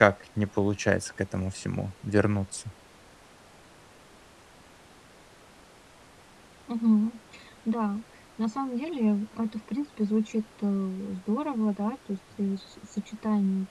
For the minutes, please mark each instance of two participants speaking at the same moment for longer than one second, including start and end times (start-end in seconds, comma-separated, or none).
none